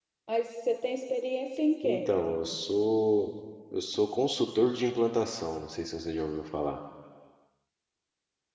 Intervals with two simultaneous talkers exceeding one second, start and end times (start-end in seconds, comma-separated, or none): none